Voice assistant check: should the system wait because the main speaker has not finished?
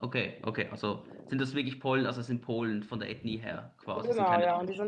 No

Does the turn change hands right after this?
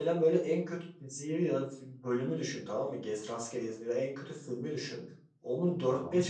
No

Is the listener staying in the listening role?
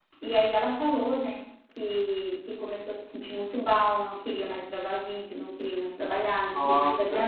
Yes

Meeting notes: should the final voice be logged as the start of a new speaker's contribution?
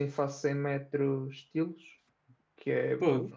No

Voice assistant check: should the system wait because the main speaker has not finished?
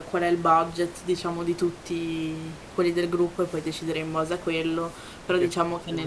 No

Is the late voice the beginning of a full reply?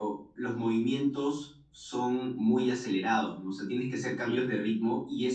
No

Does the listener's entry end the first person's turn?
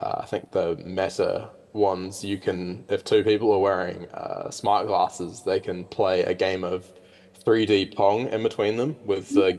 No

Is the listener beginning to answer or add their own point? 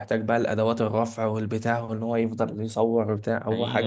Yes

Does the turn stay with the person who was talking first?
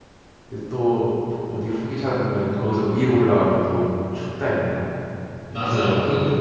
No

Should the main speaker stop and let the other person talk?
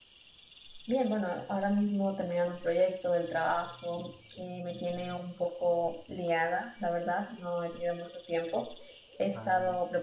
No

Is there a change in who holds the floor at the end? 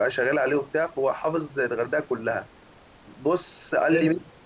No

